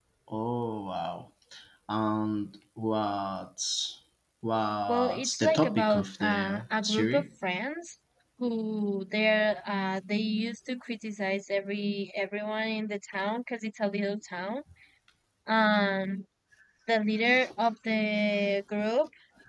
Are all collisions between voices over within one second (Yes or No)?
No